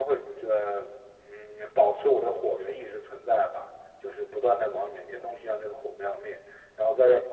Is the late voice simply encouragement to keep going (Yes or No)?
Yes